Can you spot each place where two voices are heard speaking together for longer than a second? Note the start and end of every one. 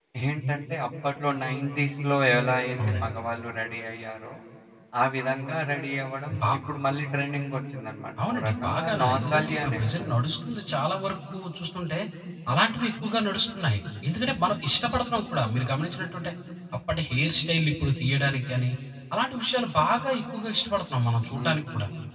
8.2-10.1

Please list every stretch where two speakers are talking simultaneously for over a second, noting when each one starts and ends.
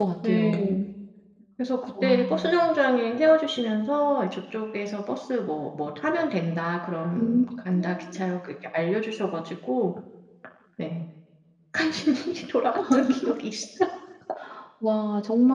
none

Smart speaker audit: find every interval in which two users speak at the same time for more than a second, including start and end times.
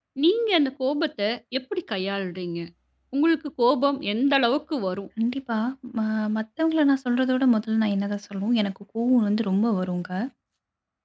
none

